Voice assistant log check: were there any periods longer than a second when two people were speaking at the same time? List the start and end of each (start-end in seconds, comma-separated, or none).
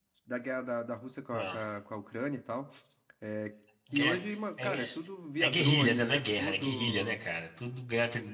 5.4-7.2